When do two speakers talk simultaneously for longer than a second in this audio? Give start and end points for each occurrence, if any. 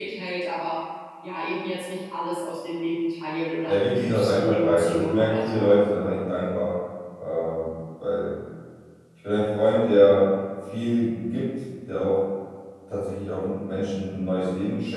3.7-5.7

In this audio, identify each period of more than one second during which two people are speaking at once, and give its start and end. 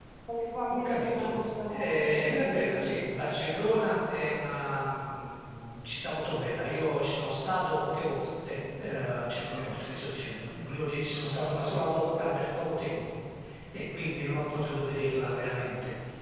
0.8-2.9

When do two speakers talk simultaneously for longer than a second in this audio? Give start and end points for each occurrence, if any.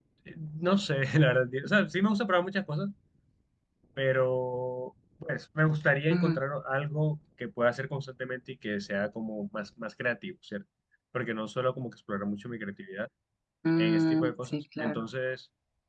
13.8-15.0

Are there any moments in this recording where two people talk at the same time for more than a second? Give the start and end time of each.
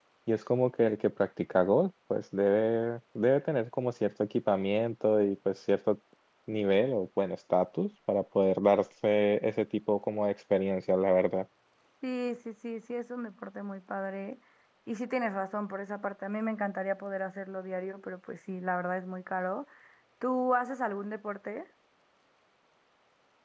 none

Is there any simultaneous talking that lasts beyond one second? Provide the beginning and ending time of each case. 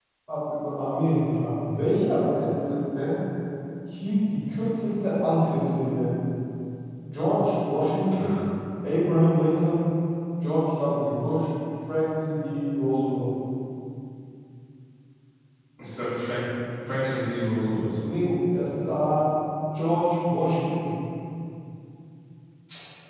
none

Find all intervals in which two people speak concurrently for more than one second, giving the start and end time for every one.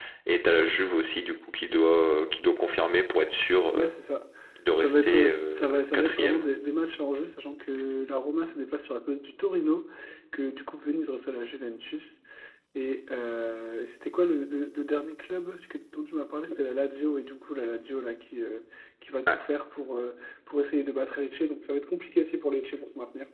4.8-6.5

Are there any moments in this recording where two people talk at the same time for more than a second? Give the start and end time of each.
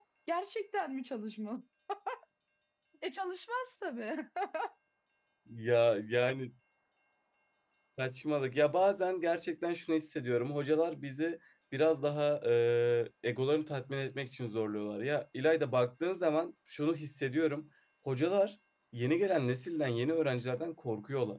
none

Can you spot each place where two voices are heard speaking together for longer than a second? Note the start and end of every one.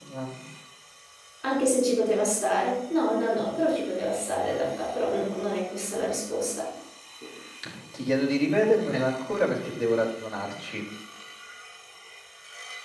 none

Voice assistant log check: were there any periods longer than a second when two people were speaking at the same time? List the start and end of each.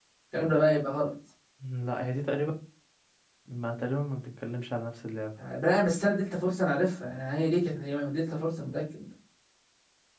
none

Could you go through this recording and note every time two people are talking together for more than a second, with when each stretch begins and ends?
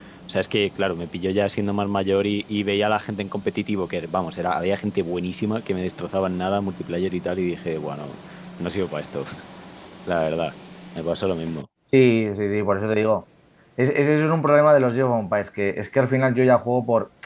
none

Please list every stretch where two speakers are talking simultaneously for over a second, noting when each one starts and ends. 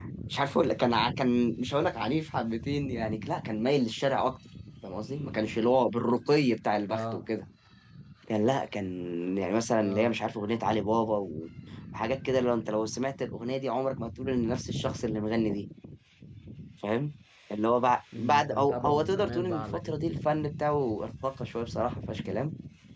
18.2-20.0

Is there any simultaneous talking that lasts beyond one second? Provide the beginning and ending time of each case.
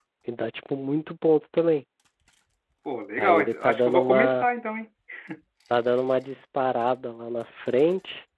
3.2-4.5

